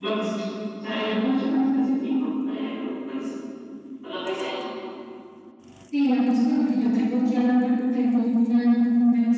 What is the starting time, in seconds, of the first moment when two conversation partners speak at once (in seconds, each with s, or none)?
none